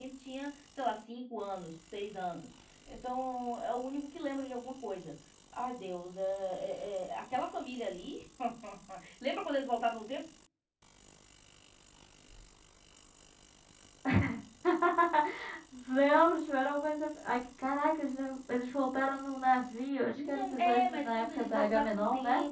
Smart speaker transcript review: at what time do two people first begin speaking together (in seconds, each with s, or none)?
20.2 s